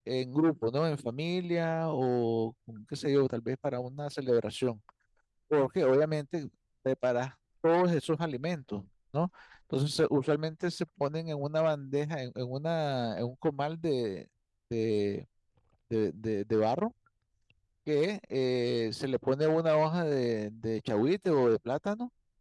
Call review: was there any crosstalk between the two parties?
No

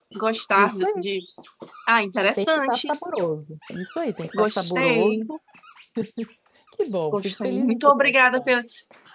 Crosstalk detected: Yes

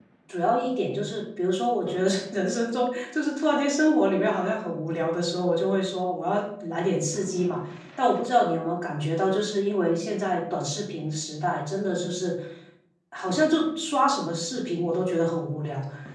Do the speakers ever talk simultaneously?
No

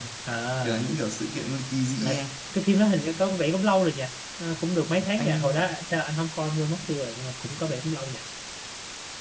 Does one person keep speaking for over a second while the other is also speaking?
No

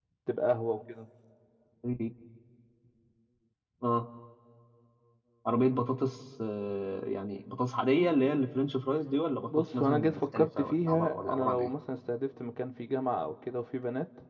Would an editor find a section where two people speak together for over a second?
Yes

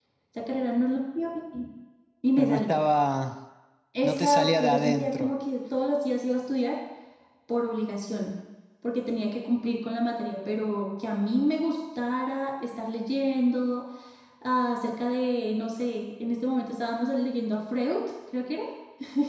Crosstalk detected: Yes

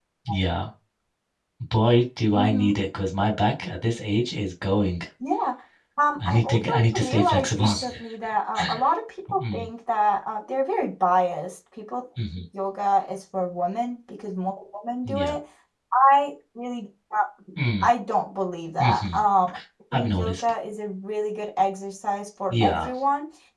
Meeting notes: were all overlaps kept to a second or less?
No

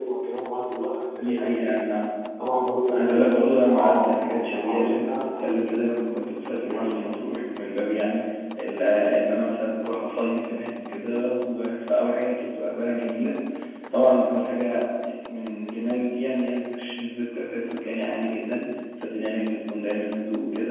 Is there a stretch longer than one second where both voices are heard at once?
Yes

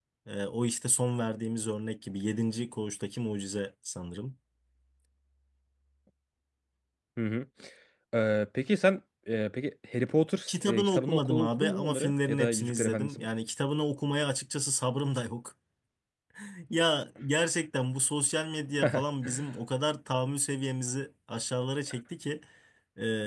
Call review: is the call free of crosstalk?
No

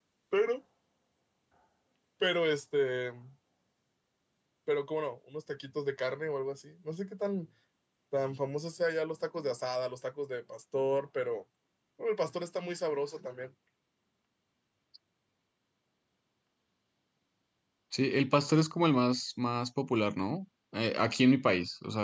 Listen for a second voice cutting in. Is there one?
No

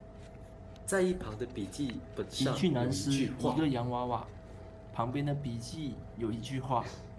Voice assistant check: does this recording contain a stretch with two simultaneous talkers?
Yes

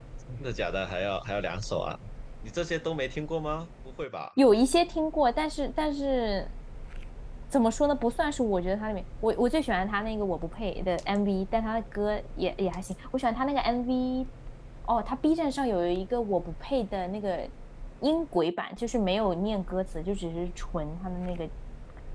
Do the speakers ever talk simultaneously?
No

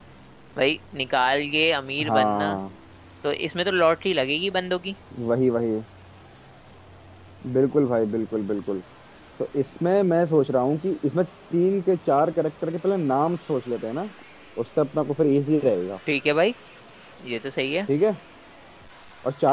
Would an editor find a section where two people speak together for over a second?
No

